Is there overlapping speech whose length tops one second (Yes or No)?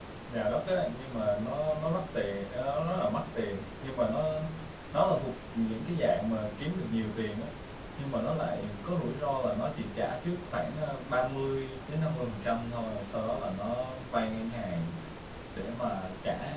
No